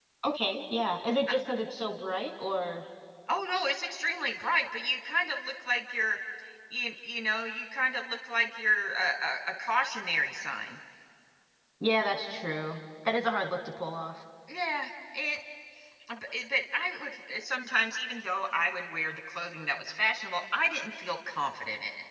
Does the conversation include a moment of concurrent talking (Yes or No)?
No